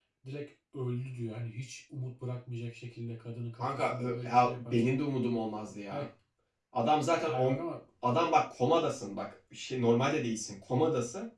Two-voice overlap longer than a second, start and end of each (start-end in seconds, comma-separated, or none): 3.6-4.9